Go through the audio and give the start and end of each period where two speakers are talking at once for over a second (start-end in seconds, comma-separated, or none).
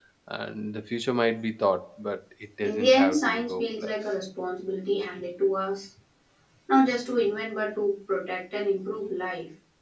2.6-3.9